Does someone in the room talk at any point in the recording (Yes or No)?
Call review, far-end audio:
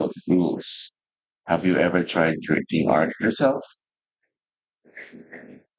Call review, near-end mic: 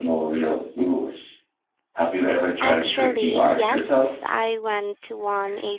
Yes